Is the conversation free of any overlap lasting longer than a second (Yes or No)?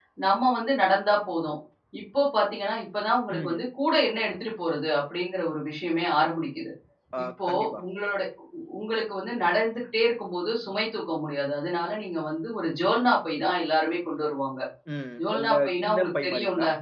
No